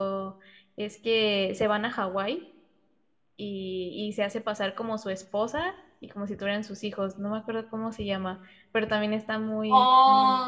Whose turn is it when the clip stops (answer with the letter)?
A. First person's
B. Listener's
B